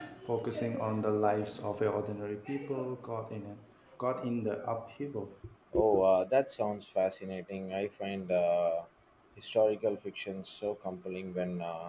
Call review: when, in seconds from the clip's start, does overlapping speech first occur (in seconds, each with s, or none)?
none